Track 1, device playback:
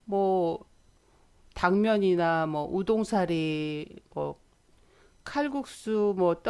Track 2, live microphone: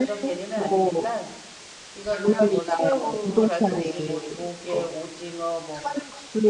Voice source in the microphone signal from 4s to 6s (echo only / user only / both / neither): both